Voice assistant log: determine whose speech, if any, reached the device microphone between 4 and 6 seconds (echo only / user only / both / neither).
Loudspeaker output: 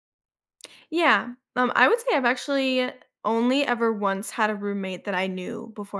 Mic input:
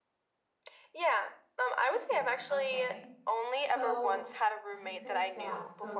both